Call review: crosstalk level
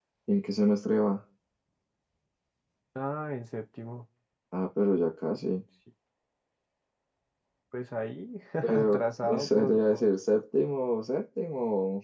present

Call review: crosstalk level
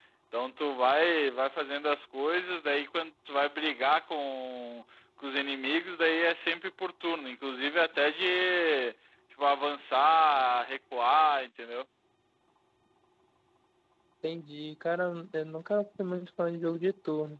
none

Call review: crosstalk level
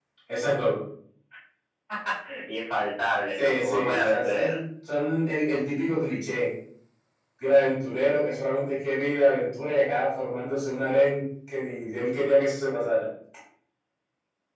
present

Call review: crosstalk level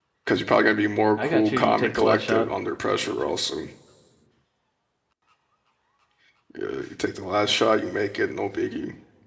present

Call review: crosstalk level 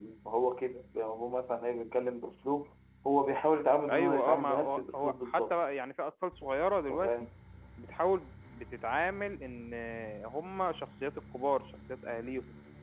present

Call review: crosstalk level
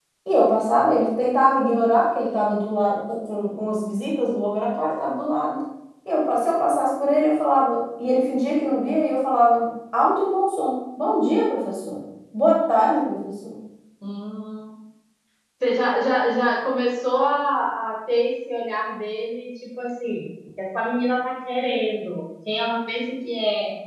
none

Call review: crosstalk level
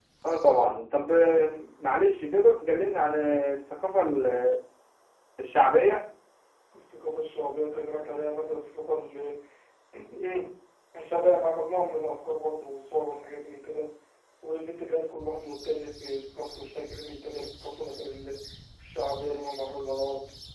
none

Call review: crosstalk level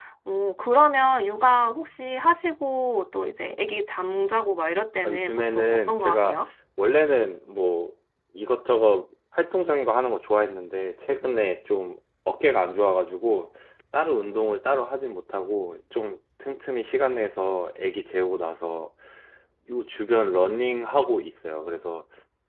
present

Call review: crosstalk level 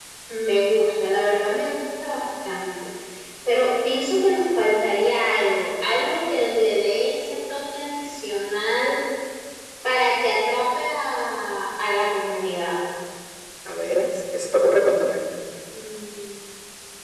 none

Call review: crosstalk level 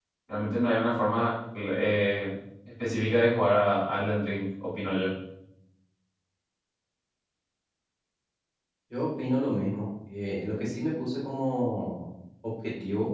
none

